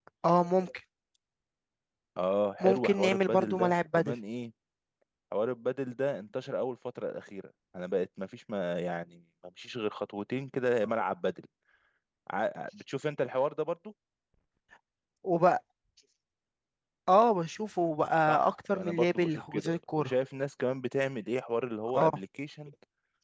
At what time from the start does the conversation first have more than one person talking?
2.6 s

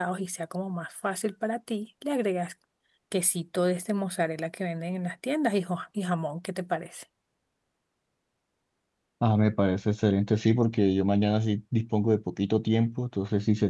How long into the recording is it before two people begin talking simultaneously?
none

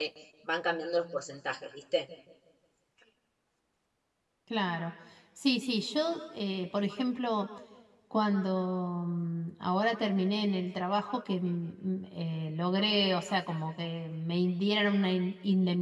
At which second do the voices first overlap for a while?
none

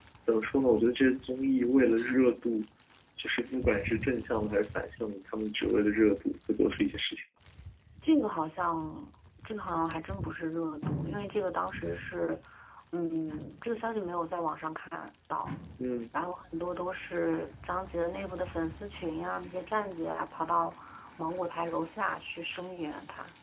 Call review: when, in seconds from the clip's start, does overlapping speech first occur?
none

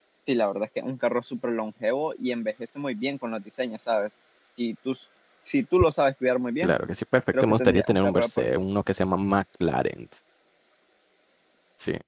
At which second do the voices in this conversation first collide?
7.4 s

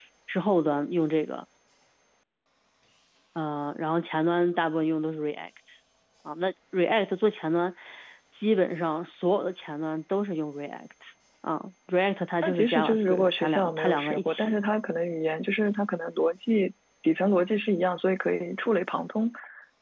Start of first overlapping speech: 12.4 s

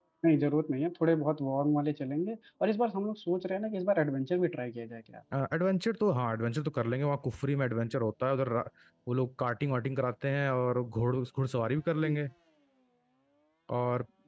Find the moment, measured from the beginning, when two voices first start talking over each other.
none

